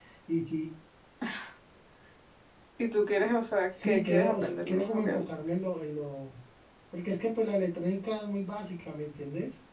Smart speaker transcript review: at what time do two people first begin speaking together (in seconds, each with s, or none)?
3.7 s